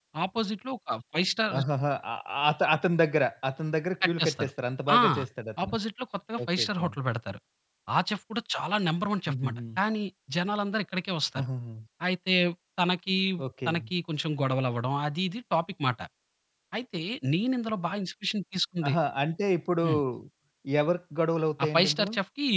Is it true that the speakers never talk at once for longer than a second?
Yes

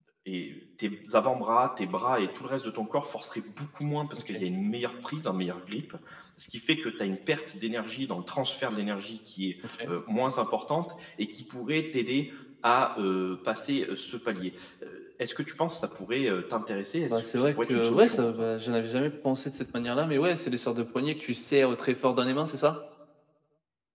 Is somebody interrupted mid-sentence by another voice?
Yes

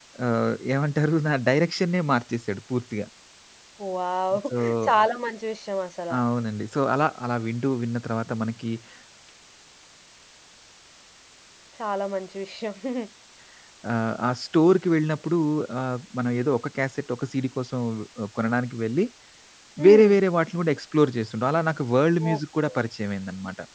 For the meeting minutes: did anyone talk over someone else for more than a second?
No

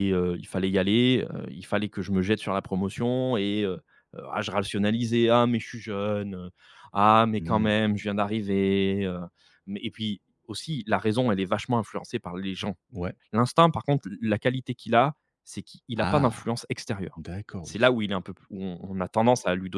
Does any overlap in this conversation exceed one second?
No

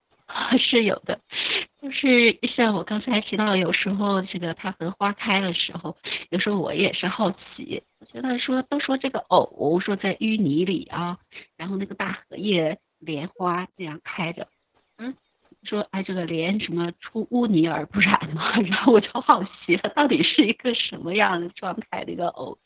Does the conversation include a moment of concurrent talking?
No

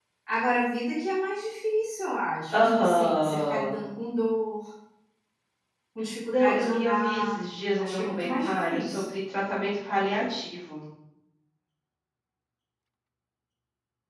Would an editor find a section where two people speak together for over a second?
Yes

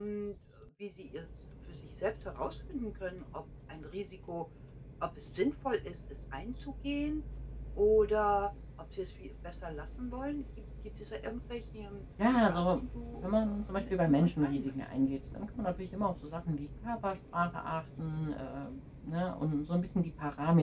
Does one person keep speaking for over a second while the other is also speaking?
Yes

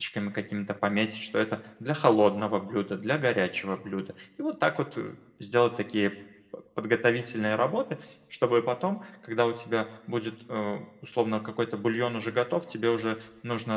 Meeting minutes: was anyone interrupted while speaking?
No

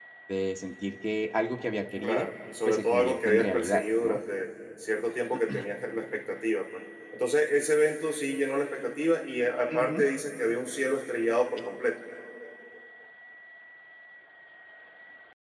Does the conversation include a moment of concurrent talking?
Yes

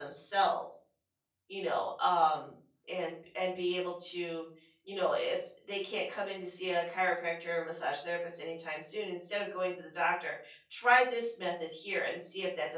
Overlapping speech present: No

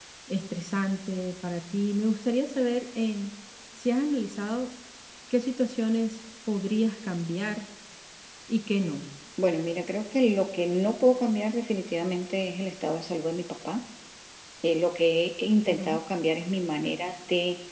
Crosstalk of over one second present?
No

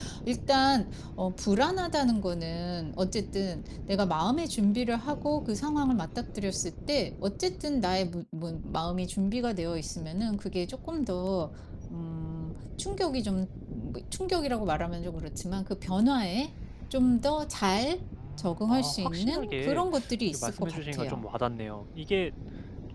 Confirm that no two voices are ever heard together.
No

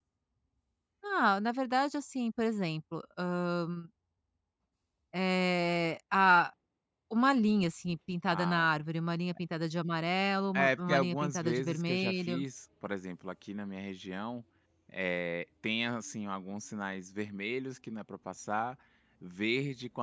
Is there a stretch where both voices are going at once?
Yes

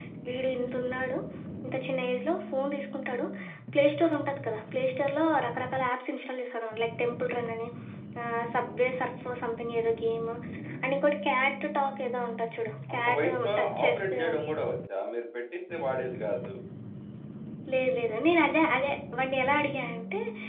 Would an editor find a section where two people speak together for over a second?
Yes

